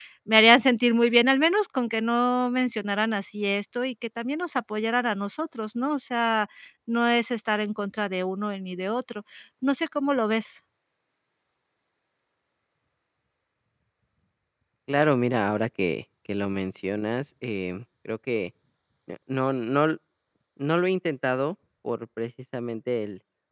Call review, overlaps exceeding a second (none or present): none